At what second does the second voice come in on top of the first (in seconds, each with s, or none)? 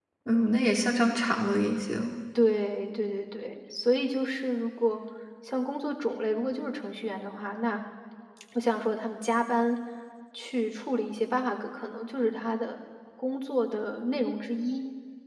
none